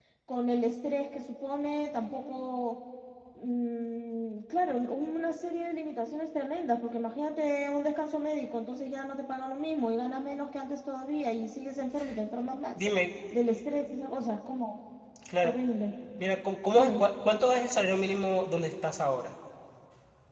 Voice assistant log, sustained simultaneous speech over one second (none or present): none